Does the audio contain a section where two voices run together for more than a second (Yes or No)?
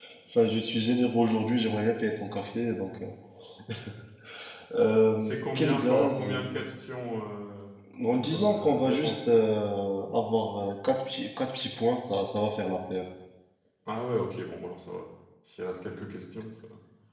Yes